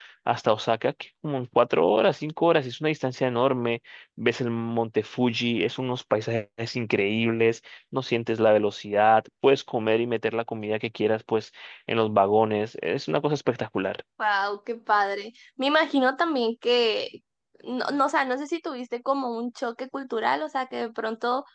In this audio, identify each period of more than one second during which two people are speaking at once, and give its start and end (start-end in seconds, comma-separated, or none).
none